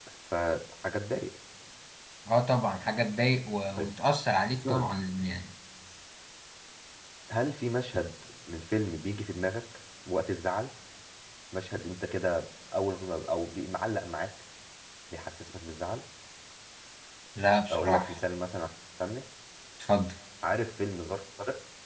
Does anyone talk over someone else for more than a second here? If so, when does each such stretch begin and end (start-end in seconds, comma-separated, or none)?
none